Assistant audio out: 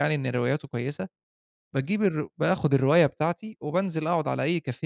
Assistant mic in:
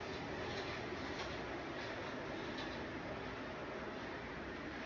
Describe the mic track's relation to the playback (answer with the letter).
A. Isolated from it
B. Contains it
A